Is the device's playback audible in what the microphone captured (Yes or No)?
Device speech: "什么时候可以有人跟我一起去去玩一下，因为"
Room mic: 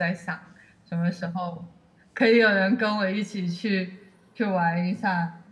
Yes